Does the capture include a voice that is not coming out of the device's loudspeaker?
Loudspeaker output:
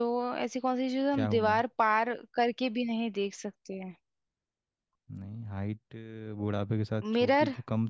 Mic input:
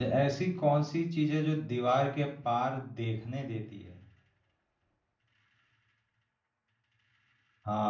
Yes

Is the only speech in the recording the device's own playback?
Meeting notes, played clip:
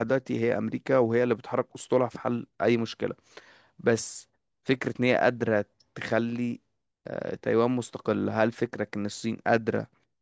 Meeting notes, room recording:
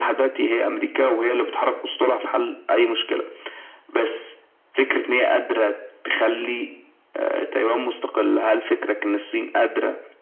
Yes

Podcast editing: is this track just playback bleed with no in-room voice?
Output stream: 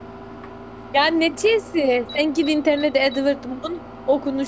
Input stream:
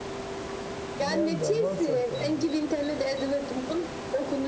No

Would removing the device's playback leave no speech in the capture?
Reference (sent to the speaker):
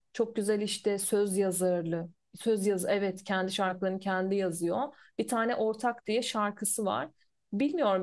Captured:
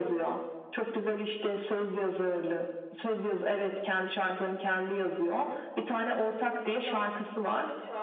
No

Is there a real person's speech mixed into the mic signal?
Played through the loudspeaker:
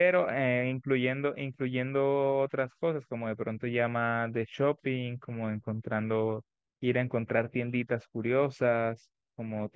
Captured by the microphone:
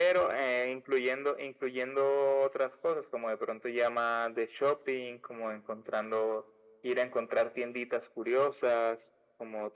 No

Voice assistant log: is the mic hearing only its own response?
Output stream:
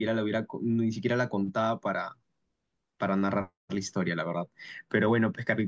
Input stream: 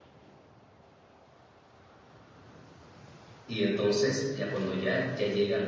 No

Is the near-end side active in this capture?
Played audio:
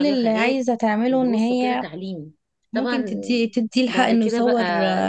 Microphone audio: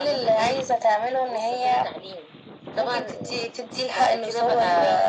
No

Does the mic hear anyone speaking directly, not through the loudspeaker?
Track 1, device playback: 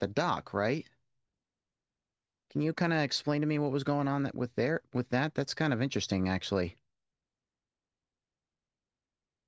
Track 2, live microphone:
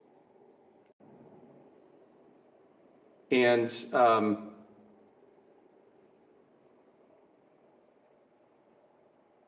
Yes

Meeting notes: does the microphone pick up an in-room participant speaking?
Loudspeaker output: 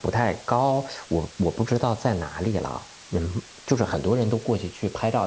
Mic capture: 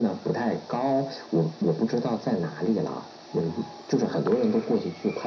No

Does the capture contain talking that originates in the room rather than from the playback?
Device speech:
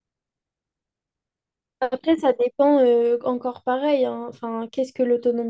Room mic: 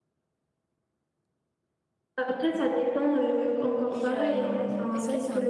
Yes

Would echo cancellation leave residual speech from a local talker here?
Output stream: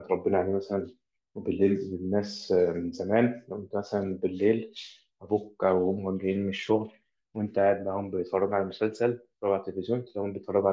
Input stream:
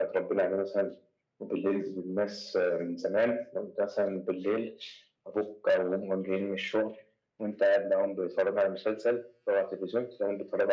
No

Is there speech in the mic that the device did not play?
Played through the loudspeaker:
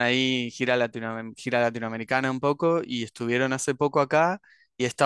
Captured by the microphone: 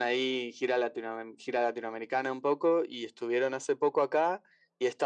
No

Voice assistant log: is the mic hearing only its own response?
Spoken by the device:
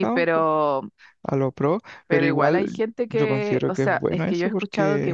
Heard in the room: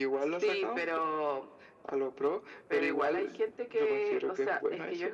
Yes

